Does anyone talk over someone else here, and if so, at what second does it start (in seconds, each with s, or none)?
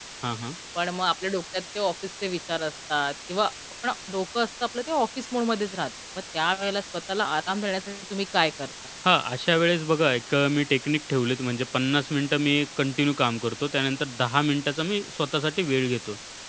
none